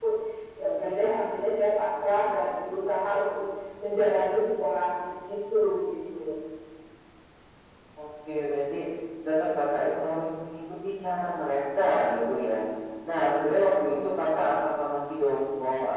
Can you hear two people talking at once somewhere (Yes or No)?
No